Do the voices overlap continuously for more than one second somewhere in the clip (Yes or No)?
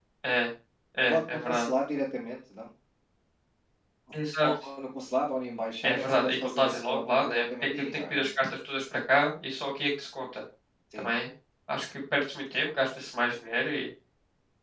Yes